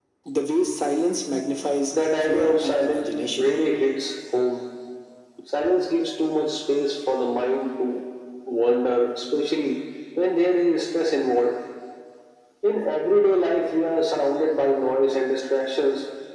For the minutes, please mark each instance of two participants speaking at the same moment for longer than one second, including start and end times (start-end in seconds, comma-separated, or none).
2.2-3.5